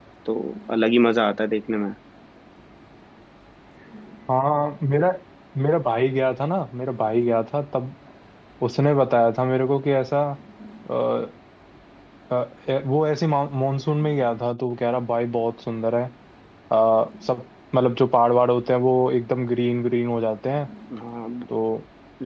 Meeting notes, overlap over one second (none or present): none